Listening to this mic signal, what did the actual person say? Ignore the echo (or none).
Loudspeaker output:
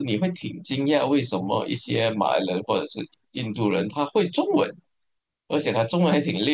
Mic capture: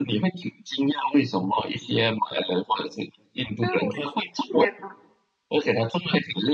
啊，我理解了。